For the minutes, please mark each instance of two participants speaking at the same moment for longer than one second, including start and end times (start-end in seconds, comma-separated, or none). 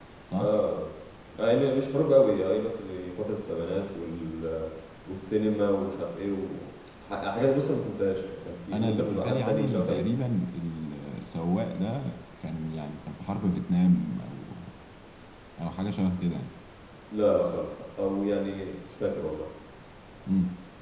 8.7-10.1